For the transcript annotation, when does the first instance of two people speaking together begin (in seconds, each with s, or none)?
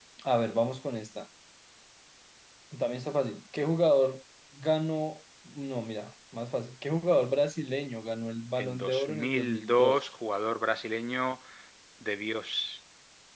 8.6 s